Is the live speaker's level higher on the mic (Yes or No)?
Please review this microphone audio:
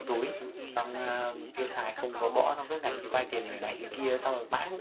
Yes